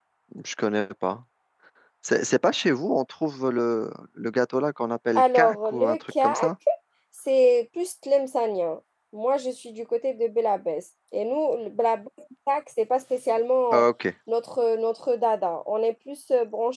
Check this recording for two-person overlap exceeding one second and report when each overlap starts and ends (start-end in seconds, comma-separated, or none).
5.2-6.4